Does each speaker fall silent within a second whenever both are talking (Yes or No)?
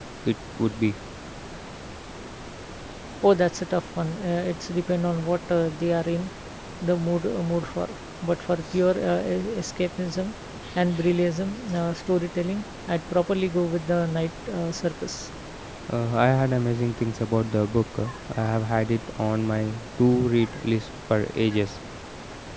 Yes